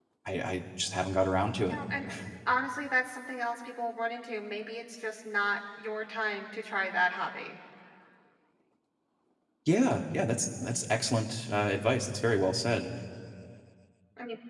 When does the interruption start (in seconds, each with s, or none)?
none